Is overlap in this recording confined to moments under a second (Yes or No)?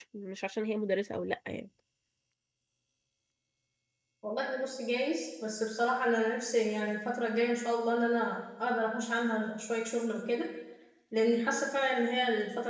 Yes